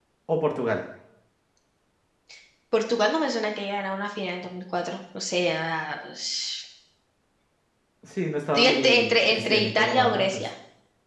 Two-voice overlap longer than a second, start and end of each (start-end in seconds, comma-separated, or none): 8.5-10.4